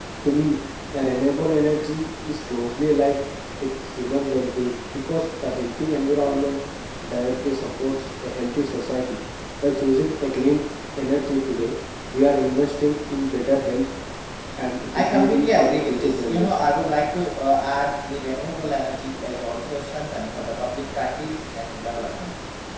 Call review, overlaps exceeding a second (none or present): present